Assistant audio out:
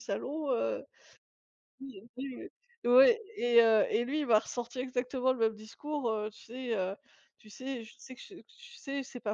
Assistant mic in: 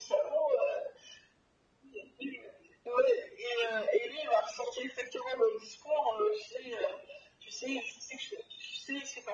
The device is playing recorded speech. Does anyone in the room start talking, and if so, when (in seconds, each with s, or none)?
none